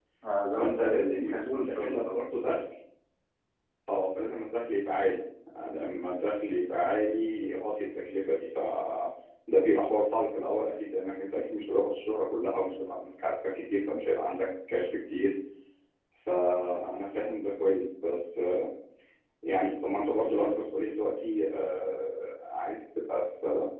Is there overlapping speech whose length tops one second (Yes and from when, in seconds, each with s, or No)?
Yes, from 0.6 s